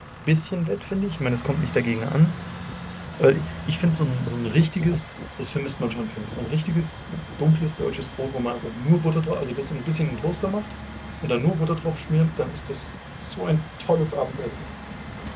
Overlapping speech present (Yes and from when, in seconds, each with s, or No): No